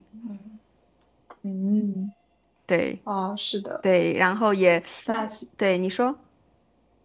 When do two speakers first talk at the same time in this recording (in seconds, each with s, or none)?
none